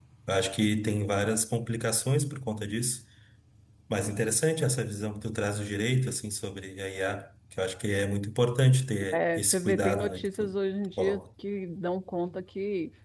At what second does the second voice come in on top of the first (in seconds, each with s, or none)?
9.1 s